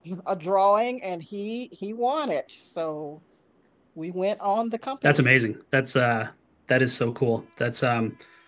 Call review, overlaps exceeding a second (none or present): none